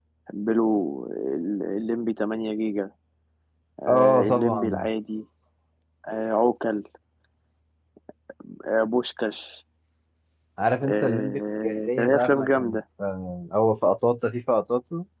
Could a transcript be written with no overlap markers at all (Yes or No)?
No